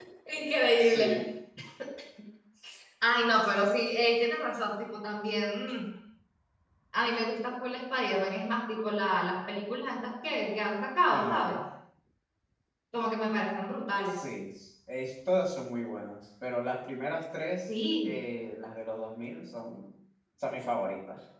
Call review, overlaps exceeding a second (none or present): none